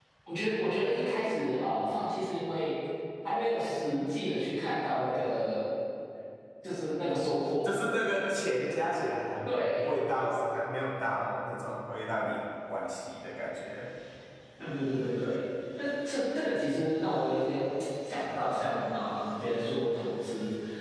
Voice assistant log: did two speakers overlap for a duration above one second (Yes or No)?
No